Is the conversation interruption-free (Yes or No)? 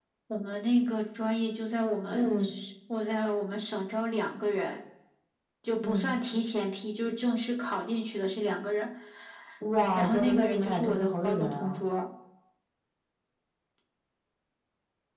No